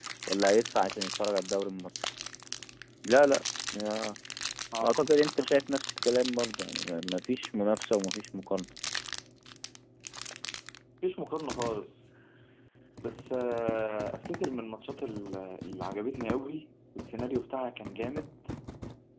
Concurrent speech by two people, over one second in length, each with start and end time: none

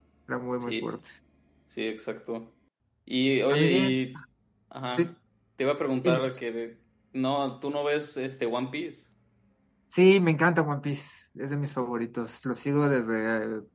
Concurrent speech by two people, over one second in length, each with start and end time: none

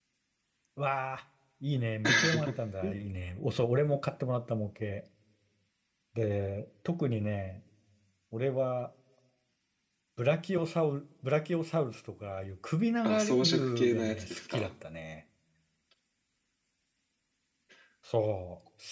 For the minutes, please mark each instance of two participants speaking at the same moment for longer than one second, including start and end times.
13.0-14.7

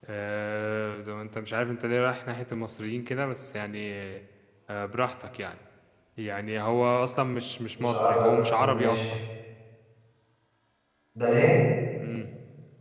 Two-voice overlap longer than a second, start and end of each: 7.8-9.1

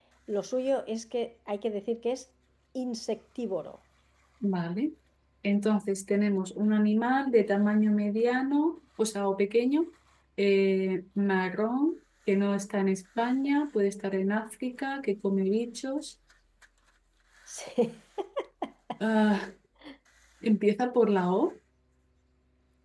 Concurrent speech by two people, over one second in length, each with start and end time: none

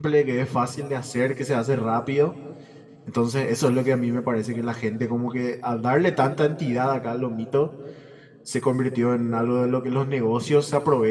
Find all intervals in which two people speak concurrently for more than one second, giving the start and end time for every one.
none

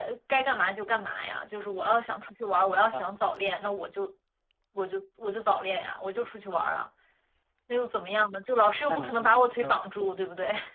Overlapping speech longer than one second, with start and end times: 8.9-10.1

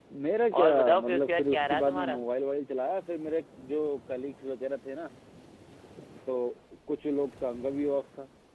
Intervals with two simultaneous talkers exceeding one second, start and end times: 0.6-2.2

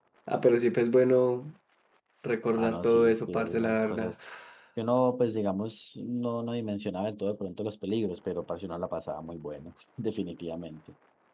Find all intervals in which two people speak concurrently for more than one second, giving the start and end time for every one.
2.6-4.1

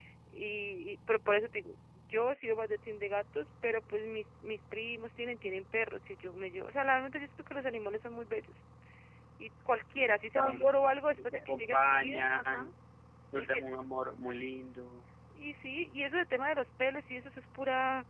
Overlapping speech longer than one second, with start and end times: 11.2-12.7

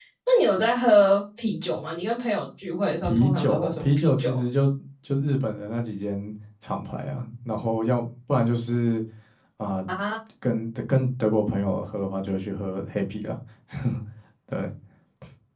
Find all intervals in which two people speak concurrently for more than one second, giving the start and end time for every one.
3.0-4.3

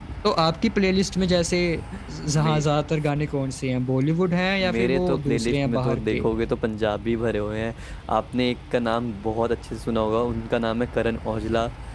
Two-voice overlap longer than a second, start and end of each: 4.6-6.2

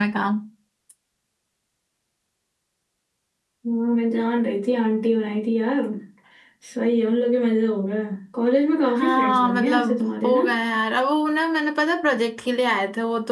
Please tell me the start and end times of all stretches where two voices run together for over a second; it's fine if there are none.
9.0-10.4

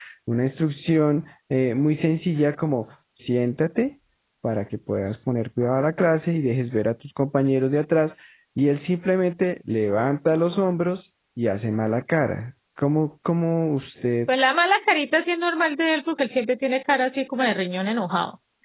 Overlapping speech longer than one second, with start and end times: none

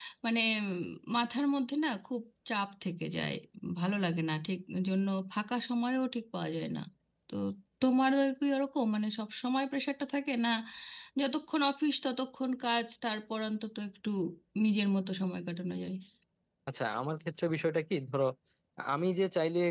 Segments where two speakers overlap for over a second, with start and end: none

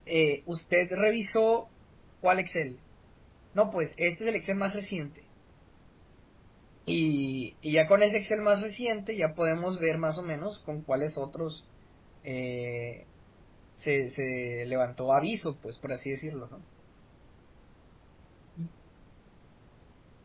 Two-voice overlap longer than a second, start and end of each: none

